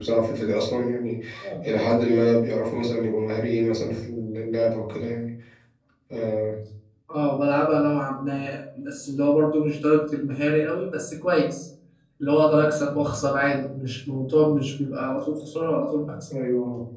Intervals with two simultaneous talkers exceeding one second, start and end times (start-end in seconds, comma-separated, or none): none